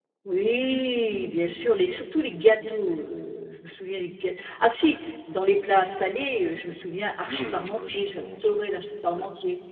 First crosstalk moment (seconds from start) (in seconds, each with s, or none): 7.2 s